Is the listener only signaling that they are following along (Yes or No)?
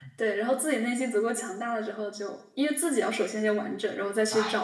No